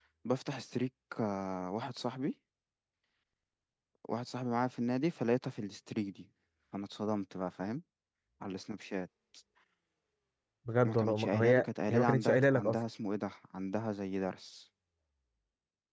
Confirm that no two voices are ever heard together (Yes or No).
No